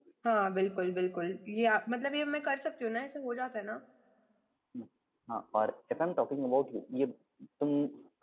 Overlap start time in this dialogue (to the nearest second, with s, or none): none